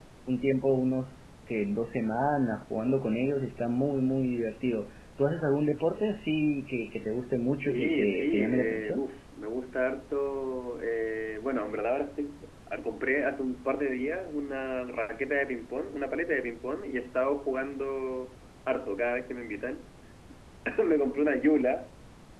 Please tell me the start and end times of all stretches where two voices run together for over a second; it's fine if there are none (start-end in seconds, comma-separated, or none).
7.6-9.1